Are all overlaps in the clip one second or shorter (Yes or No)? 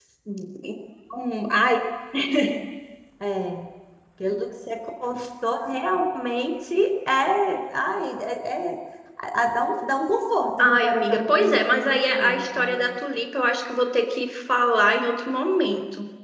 No